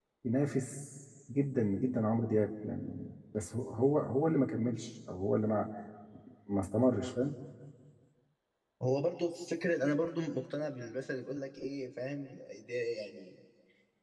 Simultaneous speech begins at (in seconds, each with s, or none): none